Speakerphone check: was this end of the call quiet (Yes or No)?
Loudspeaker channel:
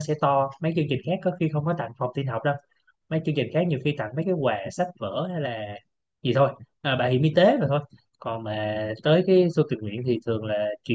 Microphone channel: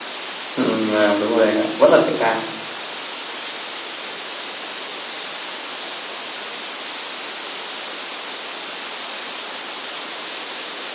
No